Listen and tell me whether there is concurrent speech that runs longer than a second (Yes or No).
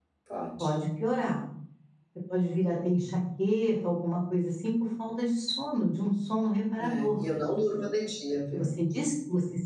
No